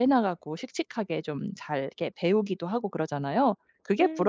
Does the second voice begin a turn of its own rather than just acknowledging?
Yes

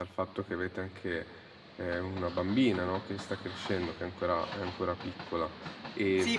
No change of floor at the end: No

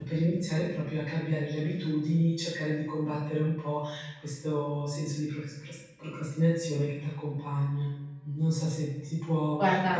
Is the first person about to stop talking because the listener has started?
No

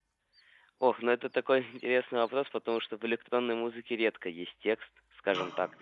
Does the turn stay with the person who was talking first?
Yes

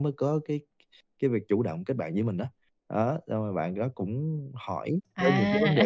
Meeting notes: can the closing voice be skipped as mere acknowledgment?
Yes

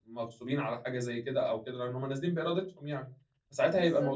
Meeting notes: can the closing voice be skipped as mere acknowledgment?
Yes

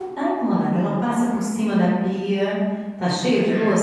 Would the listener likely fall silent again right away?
Yes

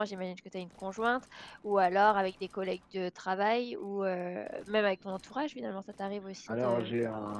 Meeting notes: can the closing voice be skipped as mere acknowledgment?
No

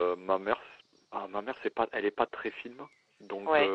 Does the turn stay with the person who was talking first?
Yes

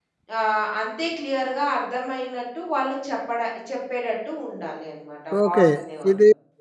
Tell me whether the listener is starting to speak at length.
Yes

